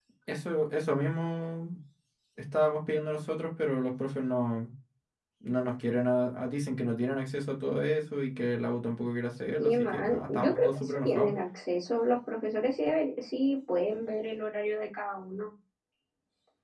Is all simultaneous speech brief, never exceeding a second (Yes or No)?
No